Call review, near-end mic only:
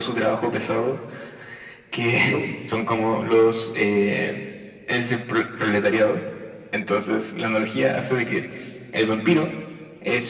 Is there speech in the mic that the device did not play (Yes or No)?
No